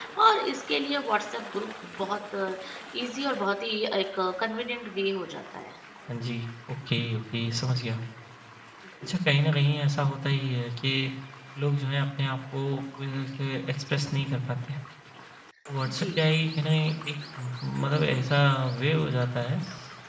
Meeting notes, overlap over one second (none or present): none